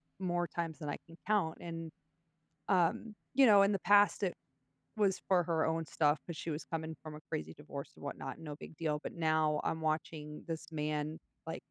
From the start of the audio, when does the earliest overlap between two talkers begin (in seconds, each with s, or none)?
none